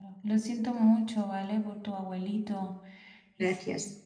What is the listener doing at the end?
listening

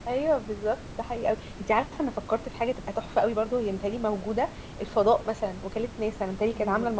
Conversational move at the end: listening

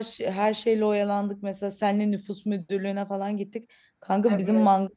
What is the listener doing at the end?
listening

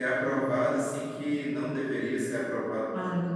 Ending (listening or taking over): taking over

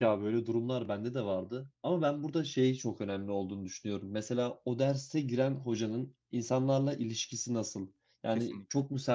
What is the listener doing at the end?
listening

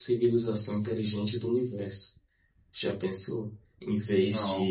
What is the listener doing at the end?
listening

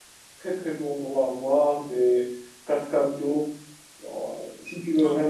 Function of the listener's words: listening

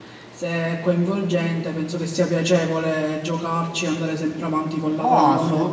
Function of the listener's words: taking over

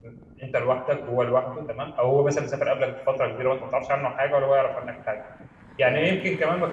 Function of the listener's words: listening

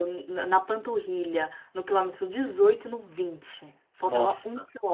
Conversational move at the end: listening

